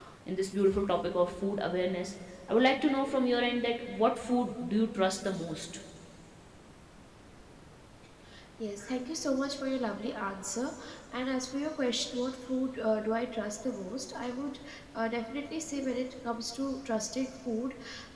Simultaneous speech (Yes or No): No